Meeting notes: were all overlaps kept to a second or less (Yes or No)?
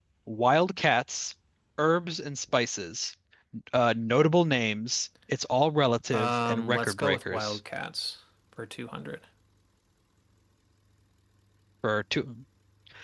No